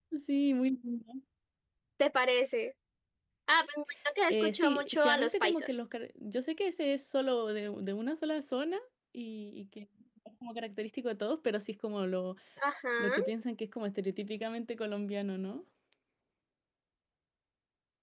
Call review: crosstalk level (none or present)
present